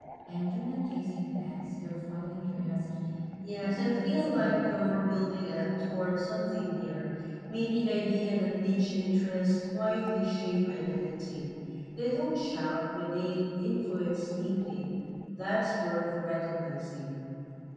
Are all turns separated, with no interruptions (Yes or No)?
No